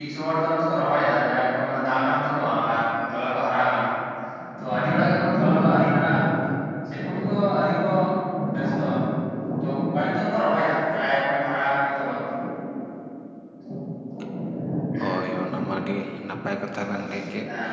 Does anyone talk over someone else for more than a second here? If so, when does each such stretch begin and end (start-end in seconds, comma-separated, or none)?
none